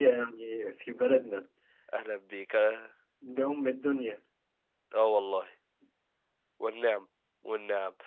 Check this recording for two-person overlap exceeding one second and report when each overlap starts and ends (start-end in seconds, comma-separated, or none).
none